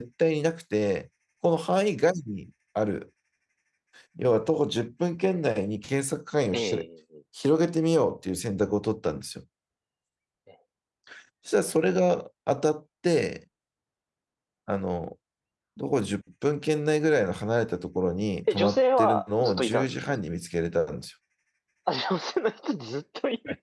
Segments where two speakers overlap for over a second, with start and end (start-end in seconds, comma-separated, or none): 18.5-19.9